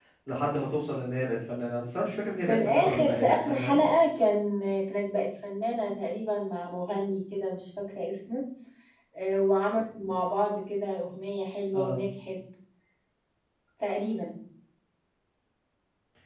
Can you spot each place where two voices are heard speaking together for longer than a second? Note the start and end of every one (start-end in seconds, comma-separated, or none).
2.5-3.8